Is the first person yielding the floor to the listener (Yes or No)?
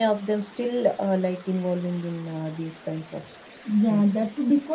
Yes